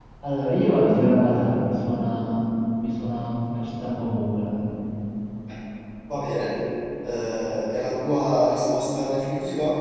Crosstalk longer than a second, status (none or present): none